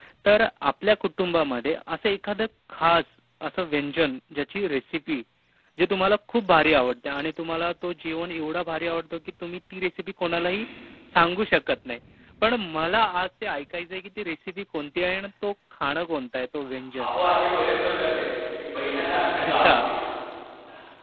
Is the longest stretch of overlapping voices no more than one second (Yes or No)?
Yes